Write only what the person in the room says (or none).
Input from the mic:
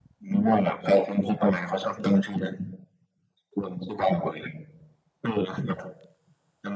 none